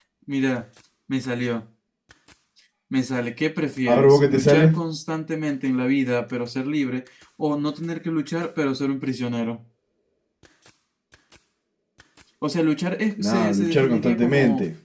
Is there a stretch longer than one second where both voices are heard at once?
Yes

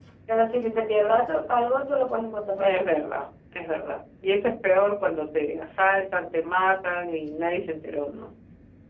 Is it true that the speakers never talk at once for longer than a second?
Yes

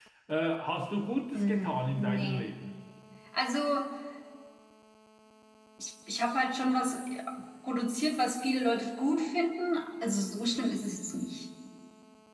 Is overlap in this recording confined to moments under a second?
No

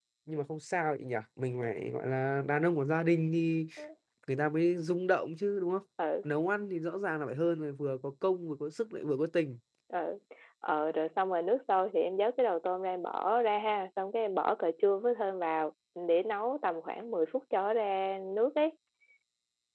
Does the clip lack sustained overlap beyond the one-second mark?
Yes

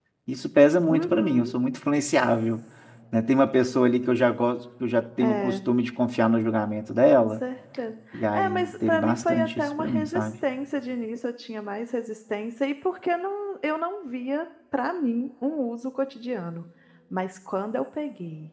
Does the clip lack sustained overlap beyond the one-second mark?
No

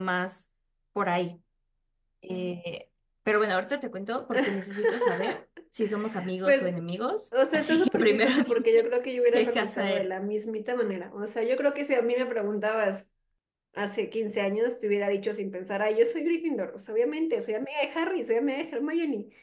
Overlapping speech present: Yes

